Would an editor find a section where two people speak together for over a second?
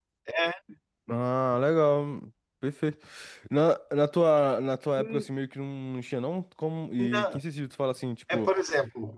No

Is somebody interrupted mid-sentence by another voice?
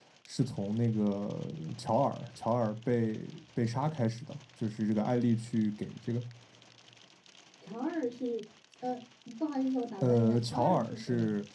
Yes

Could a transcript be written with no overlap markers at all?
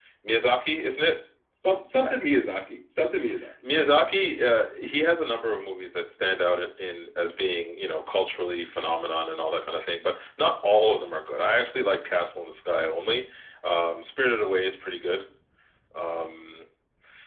Yes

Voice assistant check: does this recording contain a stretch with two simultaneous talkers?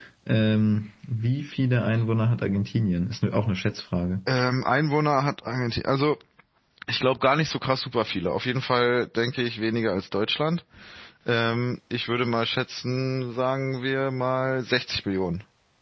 No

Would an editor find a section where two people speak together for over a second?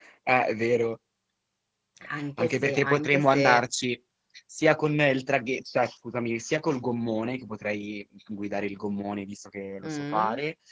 Yes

